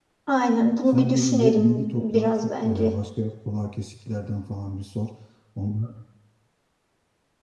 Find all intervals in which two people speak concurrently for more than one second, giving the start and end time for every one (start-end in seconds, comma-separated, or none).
0.9-2.9